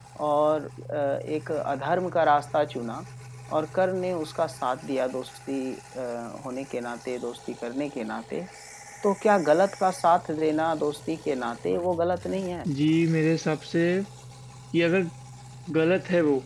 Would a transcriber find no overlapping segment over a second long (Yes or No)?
Yes